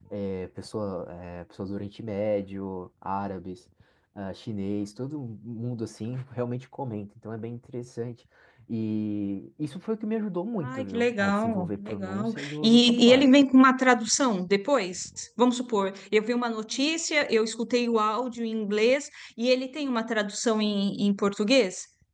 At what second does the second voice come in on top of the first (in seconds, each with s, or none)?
10.6 s